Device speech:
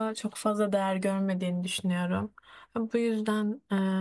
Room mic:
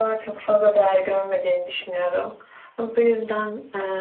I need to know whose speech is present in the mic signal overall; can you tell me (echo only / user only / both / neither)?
echo only